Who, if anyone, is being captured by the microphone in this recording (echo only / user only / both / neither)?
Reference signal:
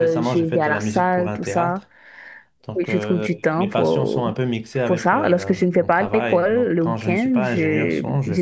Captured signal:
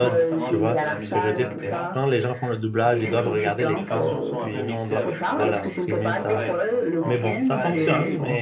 both